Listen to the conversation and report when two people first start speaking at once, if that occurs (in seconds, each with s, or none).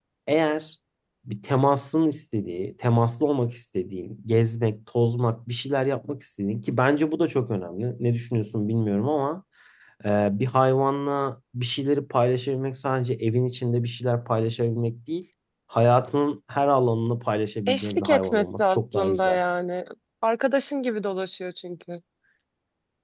17.7 s